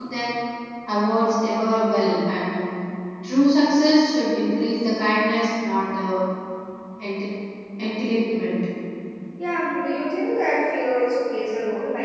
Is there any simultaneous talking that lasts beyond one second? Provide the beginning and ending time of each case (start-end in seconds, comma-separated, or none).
none